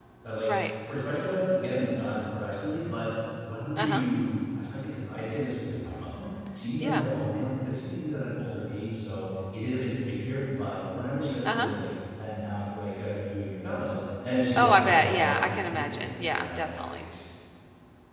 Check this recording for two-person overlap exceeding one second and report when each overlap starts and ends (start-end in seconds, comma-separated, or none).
14.6-17.1